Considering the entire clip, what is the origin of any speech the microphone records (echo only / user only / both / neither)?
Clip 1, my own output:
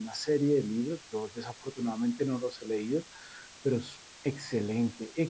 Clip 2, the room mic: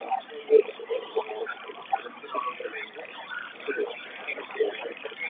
echo only